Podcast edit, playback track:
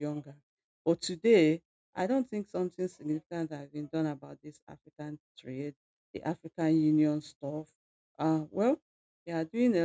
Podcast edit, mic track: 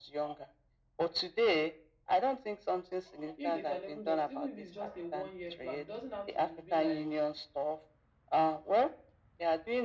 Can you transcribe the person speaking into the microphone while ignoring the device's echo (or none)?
If they can even just, even if it's just a one year plan, it doesn't have to be like